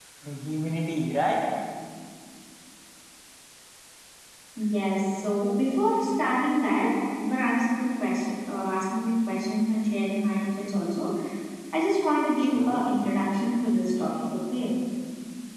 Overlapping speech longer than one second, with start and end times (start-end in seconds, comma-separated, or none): none